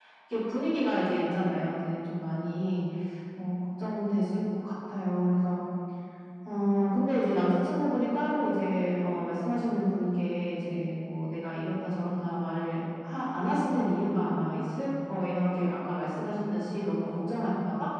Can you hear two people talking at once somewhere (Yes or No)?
No